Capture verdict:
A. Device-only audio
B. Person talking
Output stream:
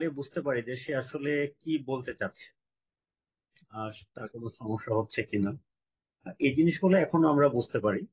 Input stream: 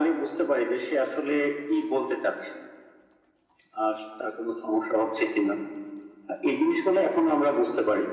A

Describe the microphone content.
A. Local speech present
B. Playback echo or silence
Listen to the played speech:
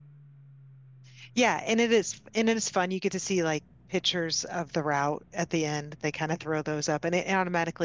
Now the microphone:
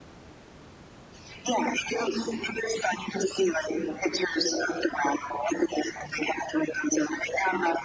B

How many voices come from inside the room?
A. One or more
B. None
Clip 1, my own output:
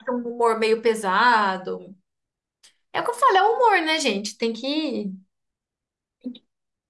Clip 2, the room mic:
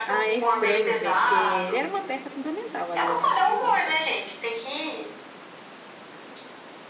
A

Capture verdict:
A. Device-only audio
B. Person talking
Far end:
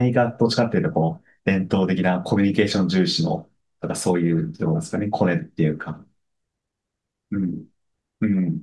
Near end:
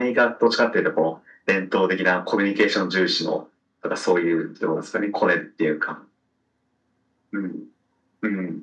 A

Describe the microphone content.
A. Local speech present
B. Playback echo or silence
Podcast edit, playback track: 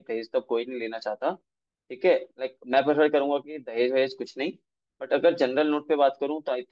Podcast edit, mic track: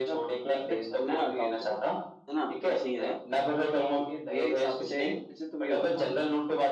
A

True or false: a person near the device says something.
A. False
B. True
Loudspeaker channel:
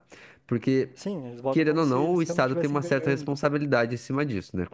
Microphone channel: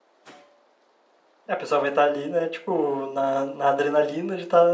B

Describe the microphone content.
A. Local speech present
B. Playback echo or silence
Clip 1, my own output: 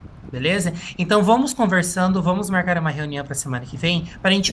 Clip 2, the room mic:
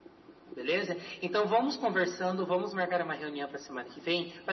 B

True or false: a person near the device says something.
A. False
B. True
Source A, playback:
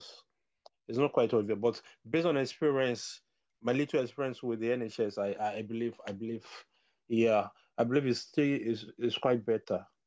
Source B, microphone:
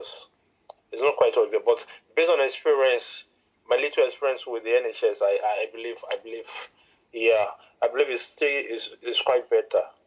A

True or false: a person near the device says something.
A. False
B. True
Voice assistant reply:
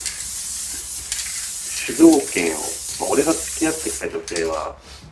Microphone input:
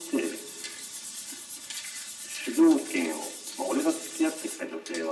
A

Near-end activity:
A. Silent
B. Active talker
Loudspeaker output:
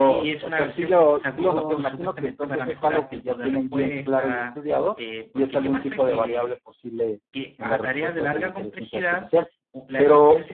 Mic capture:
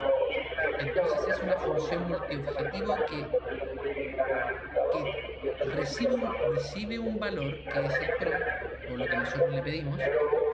B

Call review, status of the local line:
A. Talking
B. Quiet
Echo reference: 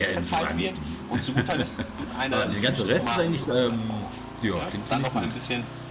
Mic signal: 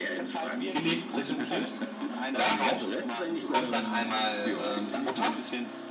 A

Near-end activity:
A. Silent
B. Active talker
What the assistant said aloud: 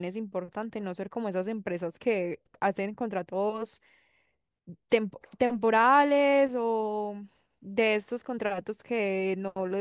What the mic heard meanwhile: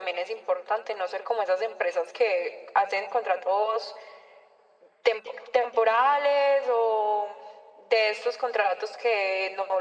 A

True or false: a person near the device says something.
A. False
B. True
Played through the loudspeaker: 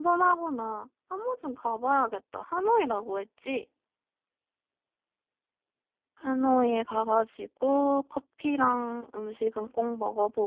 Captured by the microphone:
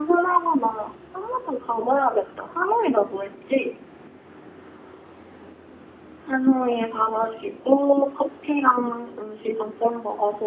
A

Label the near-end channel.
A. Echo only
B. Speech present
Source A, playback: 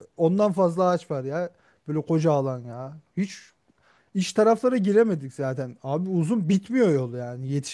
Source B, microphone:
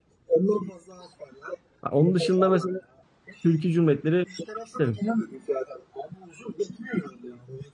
B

